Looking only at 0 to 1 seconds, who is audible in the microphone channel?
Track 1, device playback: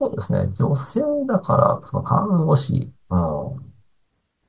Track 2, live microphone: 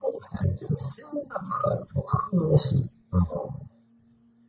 echo only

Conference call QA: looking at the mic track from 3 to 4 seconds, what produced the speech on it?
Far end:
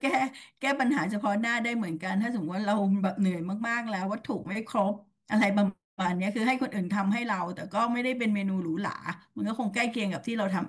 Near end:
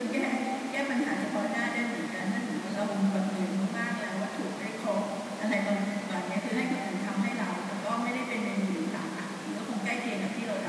echo only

